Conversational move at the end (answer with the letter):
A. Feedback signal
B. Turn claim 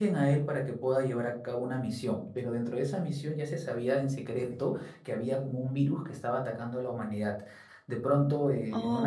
A